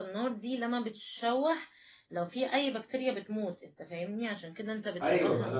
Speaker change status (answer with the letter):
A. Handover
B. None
A